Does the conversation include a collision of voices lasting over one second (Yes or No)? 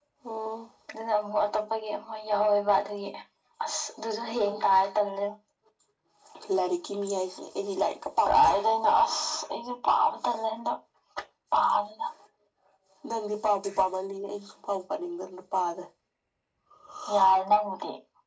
No